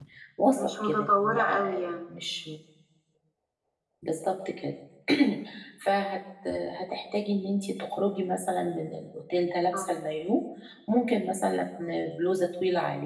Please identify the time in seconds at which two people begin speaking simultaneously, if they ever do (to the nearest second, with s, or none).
1 s